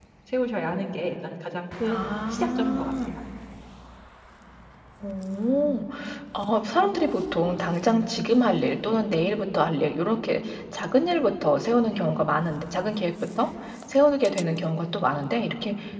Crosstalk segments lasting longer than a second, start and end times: 1.9-3.1

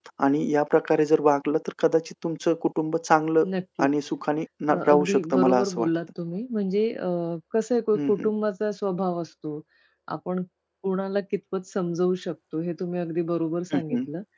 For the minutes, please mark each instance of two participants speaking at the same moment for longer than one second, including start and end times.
4.7-5.9

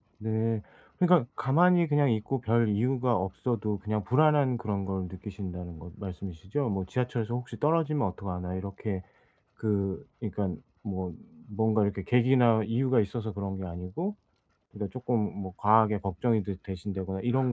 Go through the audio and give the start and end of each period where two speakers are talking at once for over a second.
none

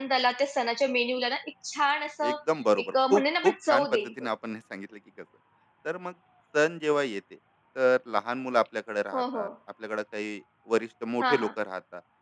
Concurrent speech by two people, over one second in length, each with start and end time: 2.8-4.3

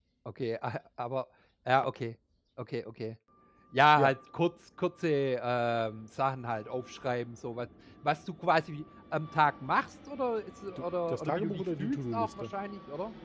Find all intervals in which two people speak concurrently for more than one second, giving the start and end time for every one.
10.8-12.4

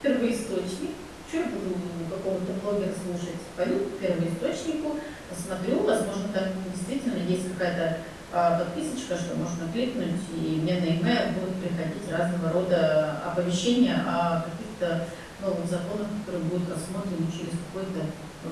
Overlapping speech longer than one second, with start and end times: none

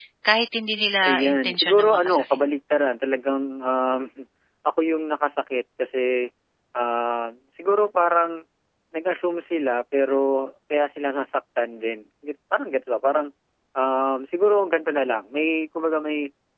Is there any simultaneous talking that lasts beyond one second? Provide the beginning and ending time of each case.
1.0-2.2

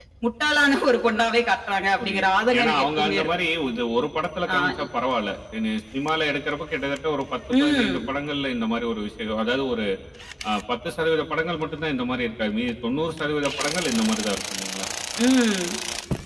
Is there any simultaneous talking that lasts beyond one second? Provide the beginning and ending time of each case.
2.0-3.3

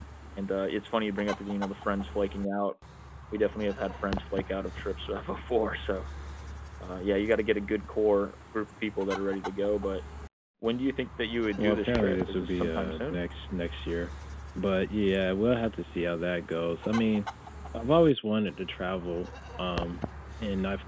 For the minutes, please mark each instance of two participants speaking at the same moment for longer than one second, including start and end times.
11.6-13.2

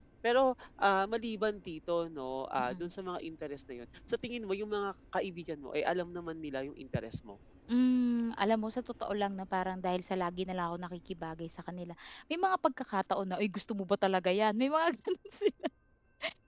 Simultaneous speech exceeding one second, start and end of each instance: none

